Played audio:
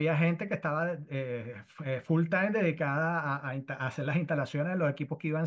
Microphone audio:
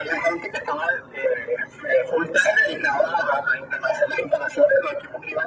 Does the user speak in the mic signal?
No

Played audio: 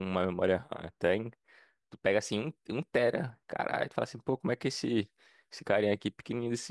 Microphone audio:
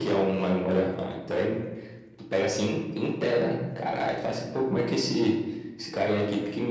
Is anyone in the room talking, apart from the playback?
No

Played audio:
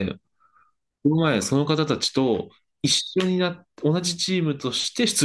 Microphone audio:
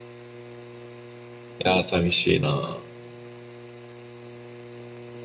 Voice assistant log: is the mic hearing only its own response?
No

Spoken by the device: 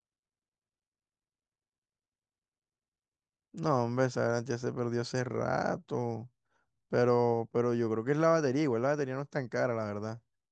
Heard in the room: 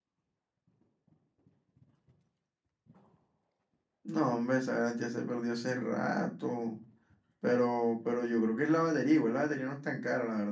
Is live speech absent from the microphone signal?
Yes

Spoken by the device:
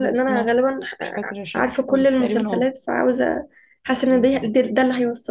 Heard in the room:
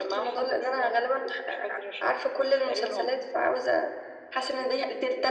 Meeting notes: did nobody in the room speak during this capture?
Yes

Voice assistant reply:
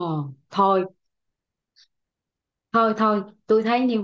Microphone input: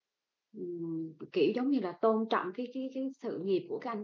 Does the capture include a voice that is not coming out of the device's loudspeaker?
Yes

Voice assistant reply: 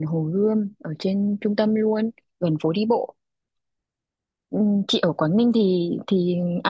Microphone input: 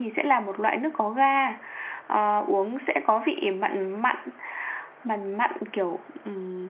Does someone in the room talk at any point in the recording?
Yes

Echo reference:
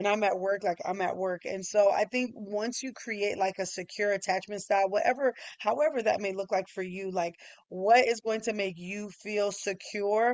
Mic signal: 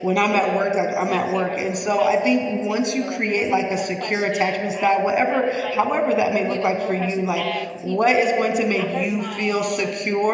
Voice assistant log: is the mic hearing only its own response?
No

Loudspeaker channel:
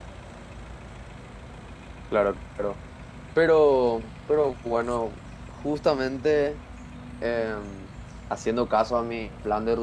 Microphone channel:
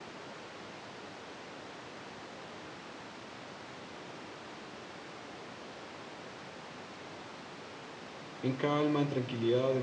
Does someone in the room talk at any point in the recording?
Yes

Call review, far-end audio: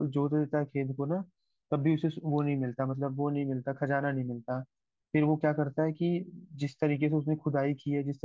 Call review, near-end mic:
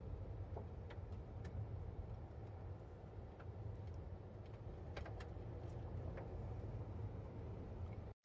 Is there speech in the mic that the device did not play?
No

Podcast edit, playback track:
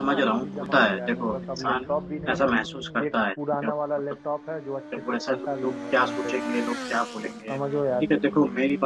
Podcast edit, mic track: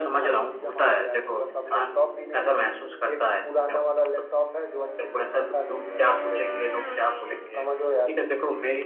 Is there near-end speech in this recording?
No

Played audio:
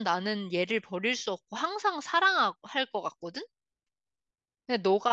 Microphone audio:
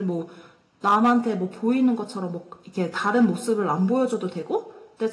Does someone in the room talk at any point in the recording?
Yes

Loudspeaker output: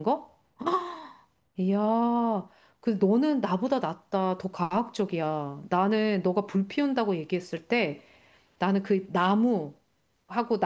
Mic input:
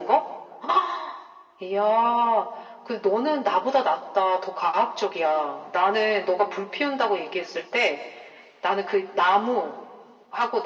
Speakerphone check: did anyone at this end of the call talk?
No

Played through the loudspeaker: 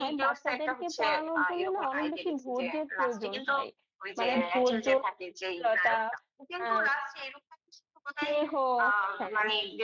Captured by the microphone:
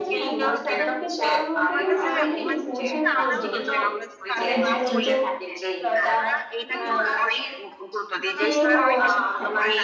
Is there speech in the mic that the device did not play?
Yes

